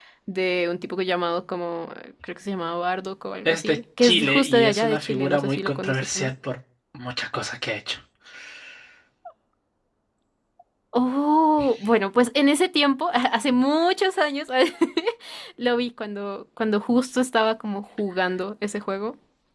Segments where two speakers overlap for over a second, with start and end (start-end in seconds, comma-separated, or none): 3.5-6.3